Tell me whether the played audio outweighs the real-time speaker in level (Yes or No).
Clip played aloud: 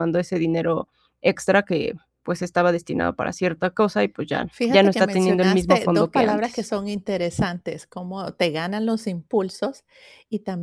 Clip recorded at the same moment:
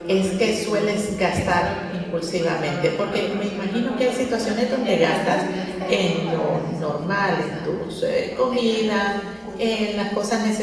No